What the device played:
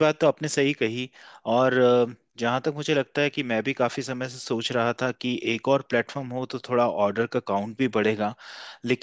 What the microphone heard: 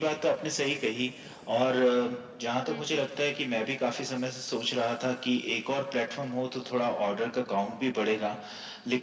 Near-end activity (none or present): present